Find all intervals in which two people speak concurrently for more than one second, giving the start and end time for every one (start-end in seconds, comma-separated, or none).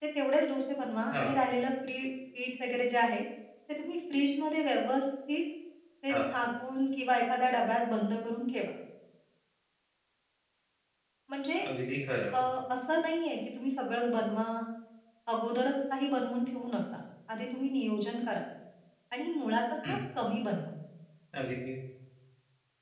none